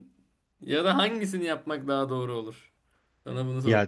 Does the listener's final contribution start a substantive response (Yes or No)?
Yes